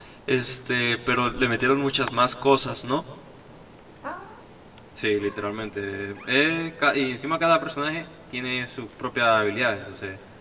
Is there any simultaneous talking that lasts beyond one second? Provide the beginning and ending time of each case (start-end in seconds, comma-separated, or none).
none